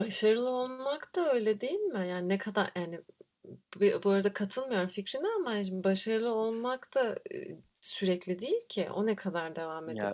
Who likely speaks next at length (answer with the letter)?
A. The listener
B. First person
B